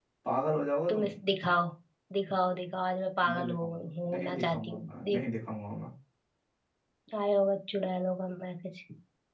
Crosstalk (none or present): present